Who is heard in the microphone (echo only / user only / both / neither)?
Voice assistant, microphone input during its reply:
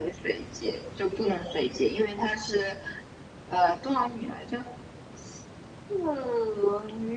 echo only